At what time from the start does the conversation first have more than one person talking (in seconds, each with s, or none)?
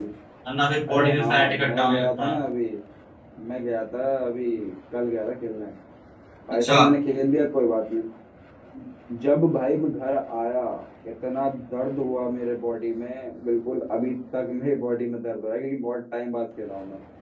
0.9 s